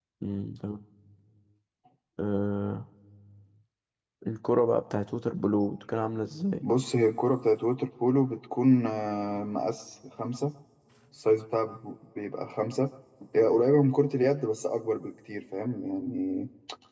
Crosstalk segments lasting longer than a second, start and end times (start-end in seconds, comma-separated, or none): none